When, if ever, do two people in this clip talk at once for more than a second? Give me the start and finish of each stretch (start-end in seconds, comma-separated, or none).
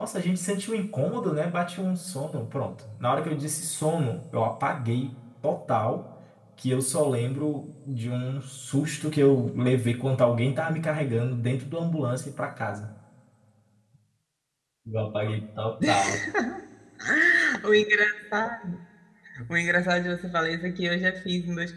none